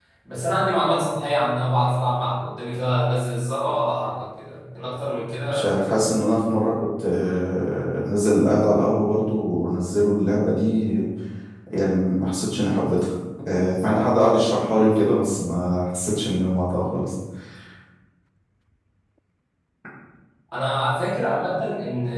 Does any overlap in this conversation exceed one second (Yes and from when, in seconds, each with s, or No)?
No